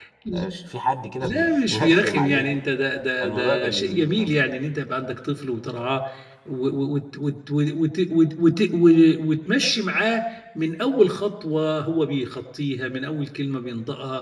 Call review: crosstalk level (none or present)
present